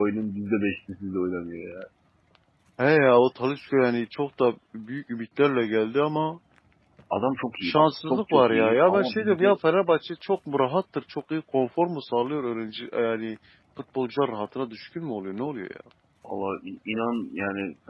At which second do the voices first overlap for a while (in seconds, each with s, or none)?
7.6 s